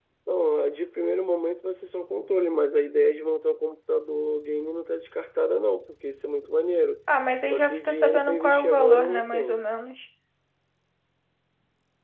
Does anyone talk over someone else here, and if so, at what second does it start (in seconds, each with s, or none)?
7.5 s